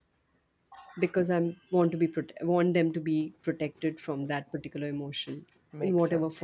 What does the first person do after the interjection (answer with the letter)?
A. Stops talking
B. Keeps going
A